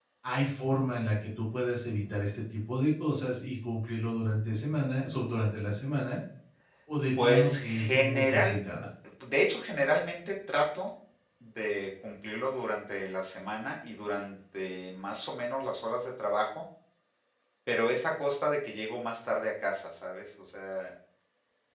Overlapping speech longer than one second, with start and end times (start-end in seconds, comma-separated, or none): 7.2-8.6